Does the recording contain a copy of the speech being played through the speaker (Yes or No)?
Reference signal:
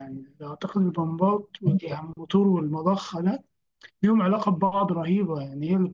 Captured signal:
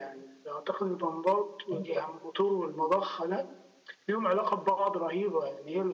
Yes